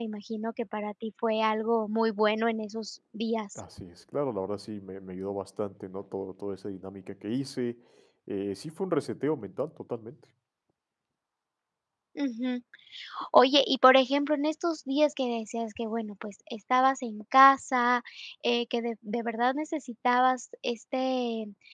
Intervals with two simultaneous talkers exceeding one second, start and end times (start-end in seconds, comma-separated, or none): none